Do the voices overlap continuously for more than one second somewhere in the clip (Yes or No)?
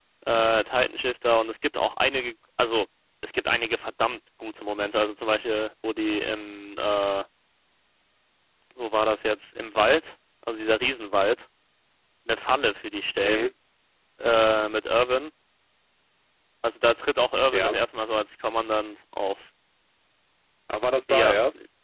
No